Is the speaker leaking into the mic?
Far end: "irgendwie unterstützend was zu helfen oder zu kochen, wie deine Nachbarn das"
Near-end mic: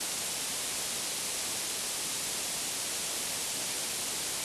No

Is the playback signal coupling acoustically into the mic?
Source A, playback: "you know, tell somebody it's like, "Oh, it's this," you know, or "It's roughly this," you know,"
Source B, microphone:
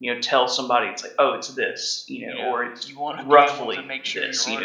Yes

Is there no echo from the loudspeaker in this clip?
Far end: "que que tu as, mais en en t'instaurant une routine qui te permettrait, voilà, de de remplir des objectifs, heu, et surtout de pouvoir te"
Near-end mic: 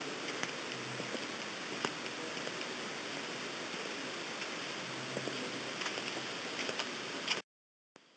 Yes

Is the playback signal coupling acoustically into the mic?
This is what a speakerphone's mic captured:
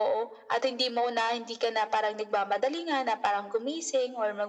Yes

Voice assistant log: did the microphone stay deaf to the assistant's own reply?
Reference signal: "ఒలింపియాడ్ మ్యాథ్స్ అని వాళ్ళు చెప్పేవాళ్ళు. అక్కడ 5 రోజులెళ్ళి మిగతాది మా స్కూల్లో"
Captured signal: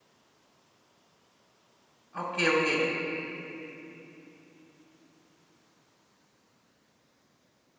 Yes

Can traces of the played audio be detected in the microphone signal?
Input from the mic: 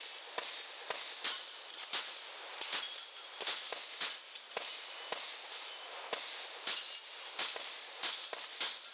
No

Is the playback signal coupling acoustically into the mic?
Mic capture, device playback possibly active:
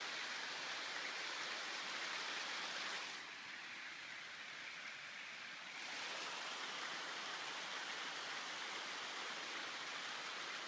No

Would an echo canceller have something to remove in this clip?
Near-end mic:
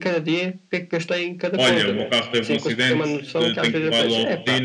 Yes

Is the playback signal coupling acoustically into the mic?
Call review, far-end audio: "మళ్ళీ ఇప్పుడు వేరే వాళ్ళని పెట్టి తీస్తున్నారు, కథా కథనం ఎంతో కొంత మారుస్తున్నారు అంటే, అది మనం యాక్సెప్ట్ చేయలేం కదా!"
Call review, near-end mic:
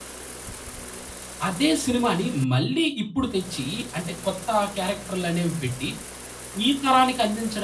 No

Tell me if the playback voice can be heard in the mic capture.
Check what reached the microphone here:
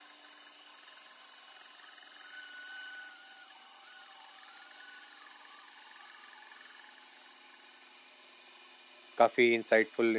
No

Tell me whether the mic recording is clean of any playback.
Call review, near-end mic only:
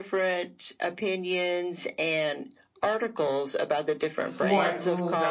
No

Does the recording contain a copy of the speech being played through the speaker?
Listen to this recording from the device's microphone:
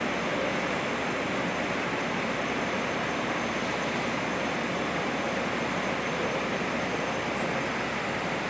No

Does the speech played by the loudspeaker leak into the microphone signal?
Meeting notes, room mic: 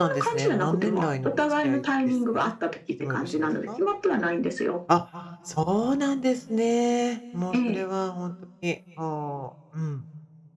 Yes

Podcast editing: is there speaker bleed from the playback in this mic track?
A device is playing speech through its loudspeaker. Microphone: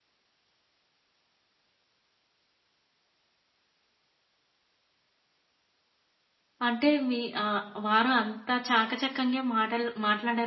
No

